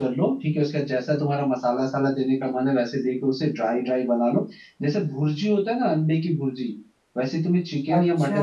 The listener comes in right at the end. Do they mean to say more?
No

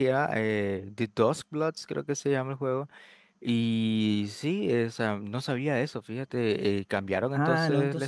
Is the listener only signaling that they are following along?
No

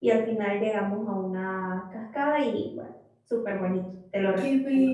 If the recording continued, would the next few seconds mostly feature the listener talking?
Yes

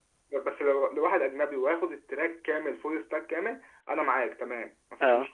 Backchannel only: Yes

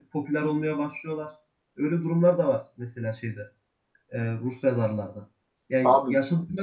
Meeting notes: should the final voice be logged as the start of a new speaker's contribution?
No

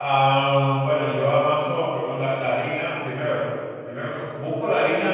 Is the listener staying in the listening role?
No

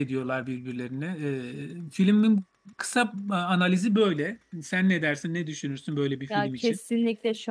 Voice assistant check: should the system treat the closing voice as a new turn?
Yes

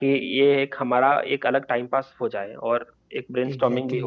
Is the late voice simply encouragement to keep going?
No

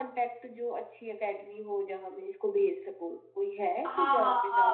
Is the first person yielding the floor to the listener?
Yes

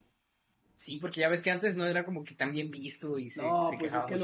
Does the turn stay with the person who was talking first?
No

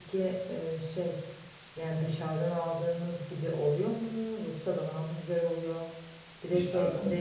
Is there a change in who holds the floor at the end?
No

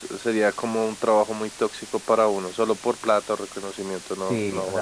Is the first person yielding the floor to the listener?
Yes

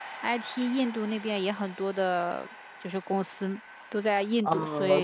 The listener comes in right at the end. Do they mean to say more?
Yes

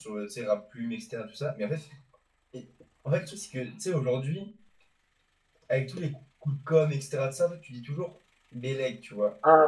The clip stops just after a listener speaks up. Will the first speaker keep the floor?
No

